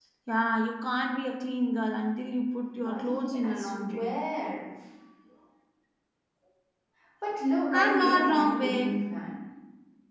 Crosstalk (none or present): present